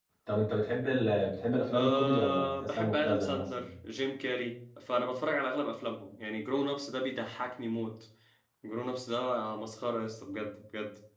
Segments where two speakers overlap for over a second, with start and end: 1.7-3.7

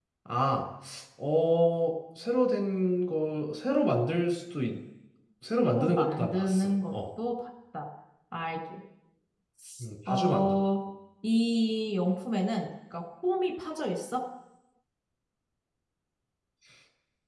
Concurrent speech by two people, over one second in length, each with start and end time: 5.6-6.9

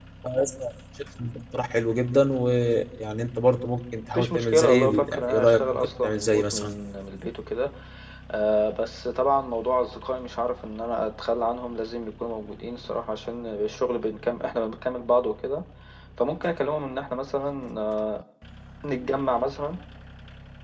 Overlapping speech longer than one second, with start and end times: 4.1-6.7

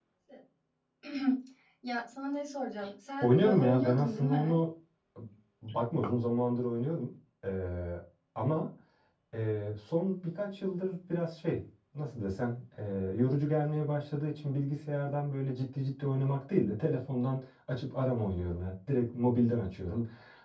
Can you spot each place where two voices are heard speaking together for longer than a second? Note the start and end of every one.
3.2-4.6

